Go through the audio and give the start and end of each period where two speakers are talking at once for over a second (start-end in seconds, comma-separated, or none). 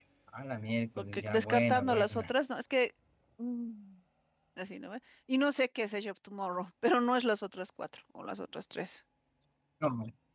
1.0-2.3